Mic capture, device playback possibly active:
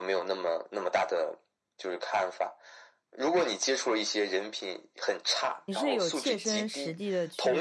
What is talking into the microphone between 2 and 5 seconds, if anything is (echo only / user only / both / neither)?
echo only